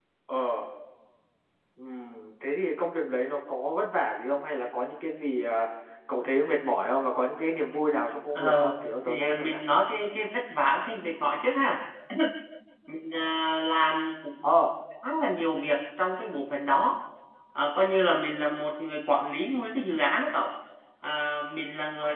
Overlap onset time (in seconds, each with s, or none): 8.4 s